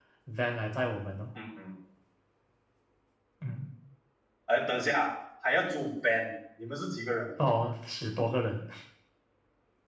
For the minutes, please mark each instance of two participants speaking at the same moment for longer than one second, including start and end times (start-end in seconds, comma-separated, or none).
none